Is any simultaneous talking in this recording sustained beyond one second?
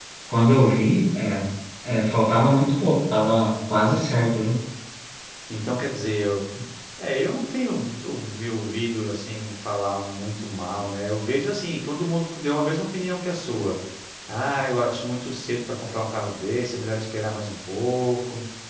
No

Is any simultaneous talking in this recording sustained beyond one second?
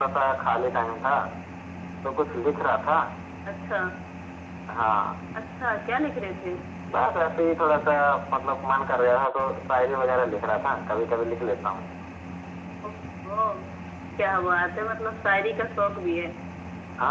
No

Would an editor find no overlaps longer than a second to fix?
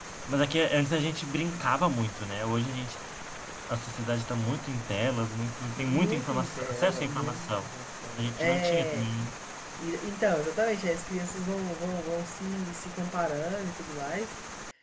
No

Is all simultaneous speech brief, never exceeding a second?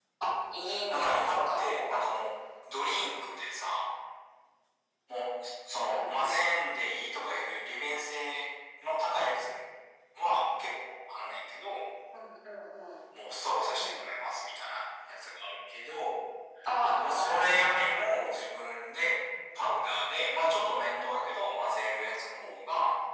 No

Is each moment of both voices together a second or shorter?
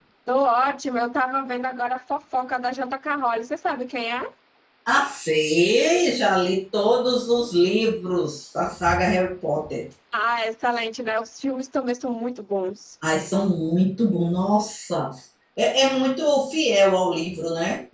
Yes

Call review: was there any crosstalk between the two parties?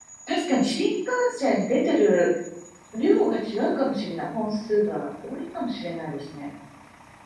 No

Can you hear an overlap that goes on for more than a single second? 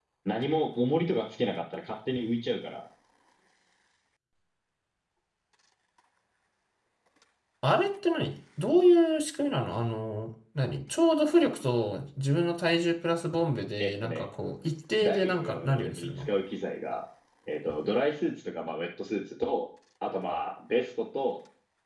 Yes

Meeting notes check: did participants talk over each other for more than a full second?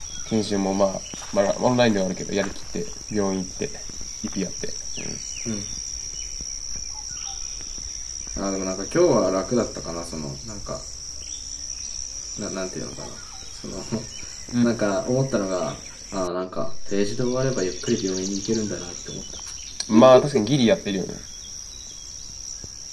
No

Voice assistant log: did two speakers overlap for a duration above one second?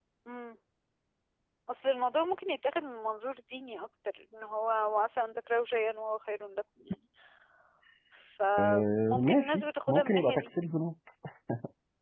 Yes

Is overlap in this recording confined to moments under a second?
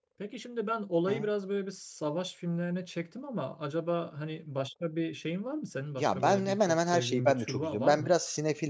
No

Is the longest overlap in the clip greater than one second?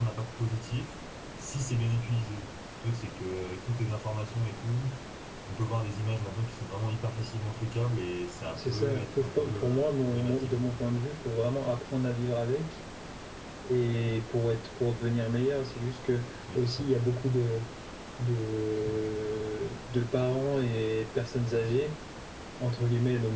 Yes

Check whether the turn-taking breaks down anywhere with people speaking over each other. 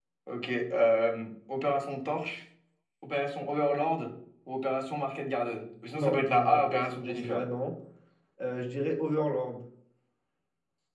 Yes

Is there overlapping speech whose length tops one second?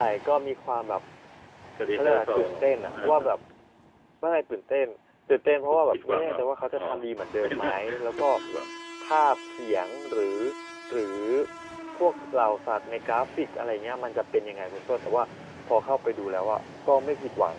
Yes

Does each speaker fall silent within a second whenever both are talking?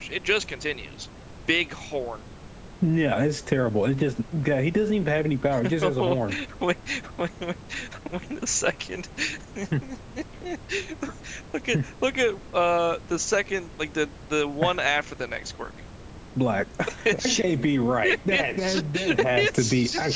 No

